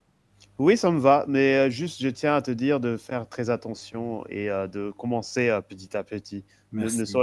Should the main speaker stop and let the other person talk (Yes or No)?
No